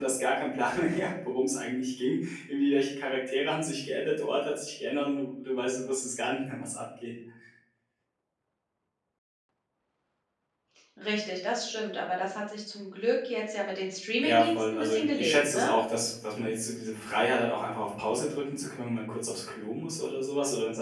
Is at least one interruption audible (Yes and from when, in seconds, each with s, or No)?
Yes, from 14.2 s